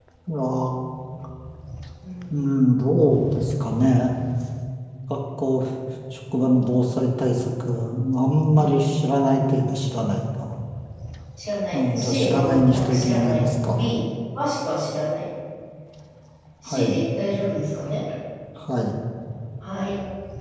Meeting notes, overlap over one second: present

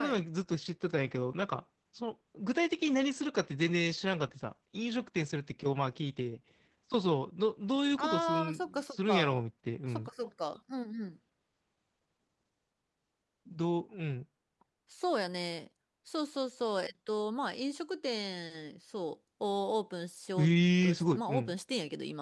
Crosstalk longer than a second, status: present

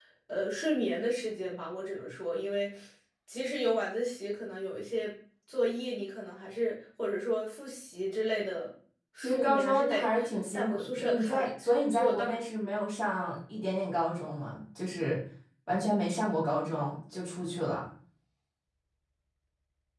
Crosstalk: present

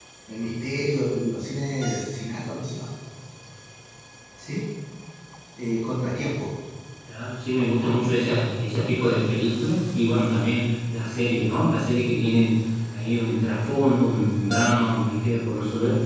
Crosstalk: none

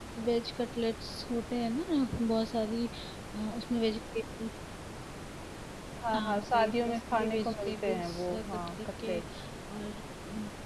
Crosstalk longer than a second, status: present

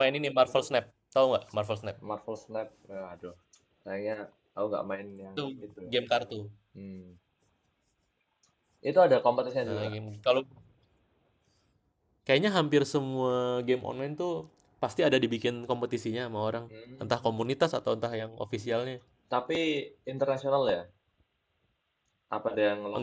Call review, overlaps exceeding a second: none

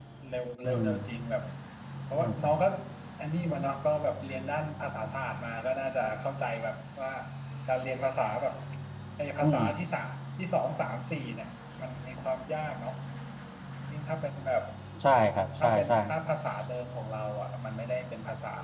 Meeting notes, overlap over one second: none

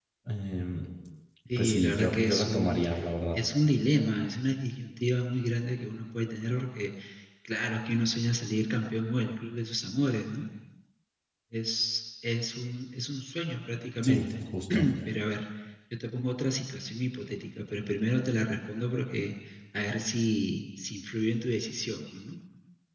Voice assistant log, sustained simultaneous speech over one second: present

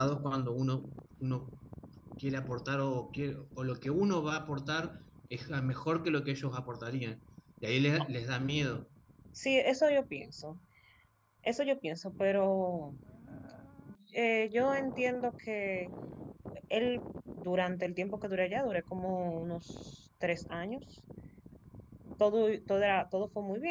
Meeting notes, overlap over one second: none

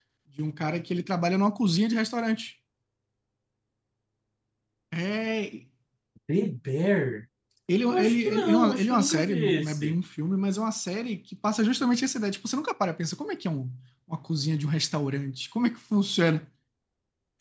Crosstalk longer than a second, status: present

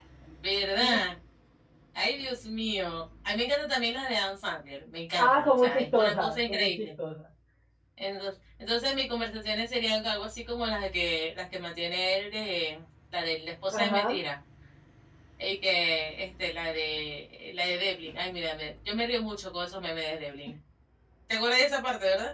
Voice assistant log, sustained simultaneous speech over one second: present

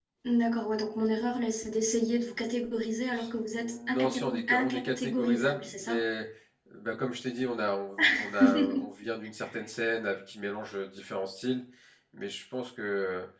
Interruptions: present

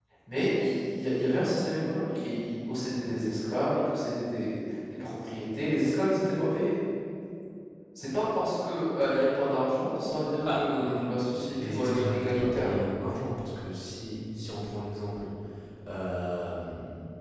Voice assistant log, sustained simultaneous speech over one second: present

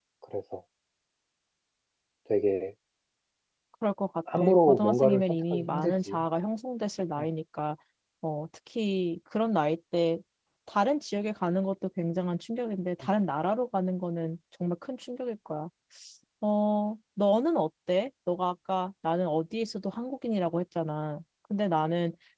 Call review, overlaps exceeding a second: present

